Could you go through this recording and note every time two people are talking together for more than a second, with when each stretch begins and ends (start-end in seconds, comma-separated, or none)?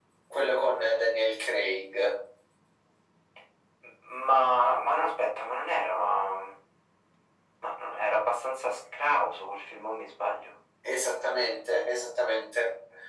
none